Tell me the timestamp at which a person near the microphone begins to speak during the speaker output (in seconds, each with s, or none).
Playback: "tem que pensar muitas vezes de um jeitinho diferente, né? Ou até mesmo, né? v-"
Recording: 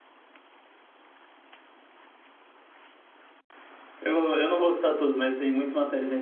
4.0 s